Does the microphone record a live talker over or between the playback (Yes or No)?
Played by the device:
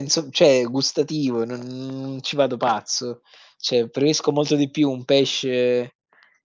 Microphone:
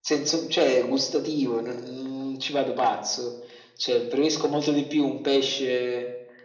No